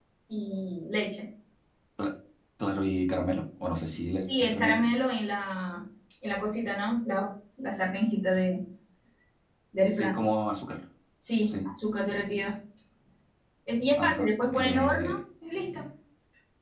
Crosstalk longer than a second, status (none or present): present